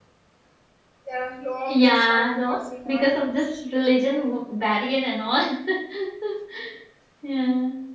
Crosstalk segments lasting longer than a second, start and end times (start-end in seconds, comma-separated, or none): 1.7-3.0